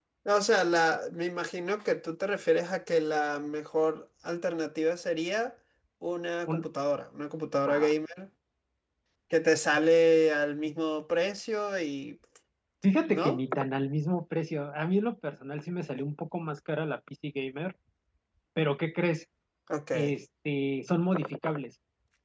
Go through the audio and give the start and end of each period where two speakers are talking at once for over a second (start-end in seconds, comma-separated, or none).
none